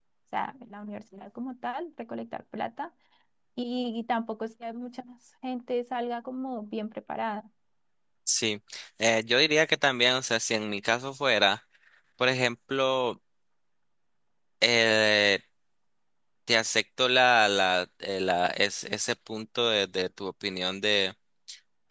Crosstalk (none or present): none